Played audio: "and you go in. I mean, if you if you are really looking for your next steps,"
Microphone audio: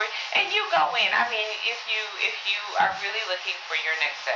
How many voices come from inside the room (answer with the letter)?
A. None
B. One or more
A